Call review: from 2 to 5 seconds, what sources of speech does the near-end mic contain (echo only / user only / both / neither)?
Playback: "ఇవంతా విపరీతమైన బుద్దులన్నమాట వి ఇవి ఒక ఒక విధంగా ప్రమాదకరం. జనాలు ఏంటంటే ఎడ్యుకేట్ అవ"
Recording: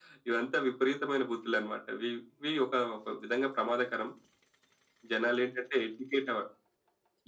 echo only